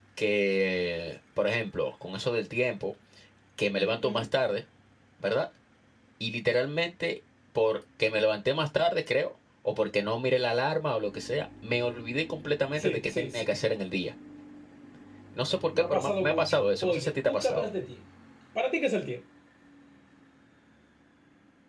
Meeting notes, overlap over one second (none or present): present